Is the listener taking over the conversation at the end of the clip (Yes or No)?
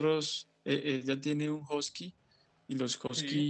No